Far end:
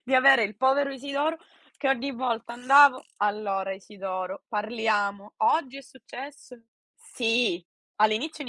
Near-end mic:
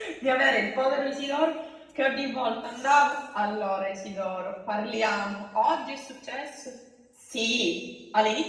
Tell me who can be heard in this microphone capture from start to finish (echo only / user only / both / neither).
echo only